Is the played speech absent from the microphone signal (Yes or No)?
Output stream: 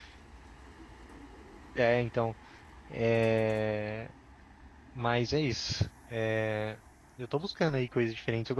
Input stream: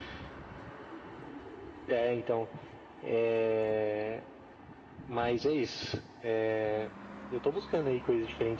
No